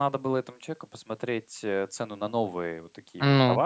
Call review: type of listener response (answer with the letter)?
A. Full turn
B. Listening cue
B